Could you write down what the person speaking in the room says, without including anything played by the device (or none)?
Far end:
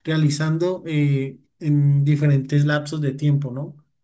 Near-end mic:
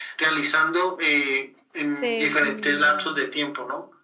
te- mm,